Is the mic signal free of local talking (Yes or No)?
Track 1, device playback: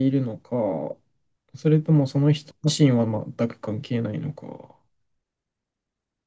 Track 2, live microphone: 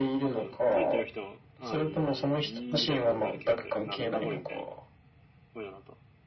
No